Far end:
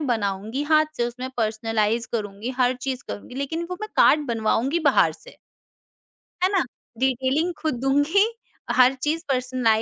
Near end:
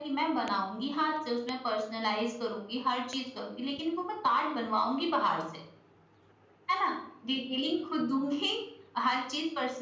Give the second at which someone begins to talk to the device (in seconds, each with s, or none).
none